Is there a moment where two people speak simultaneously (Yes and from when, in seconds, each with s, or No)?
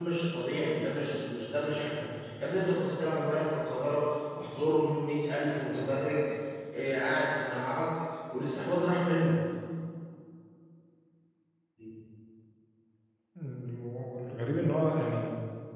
No